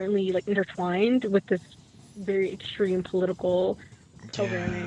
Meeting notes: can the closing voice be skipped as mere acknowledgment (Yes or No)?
No